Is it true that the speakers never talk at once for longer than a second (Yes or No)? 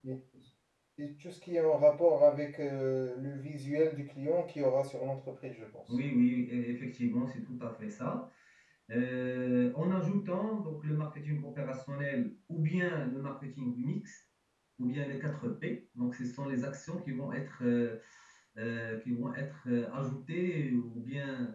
Yes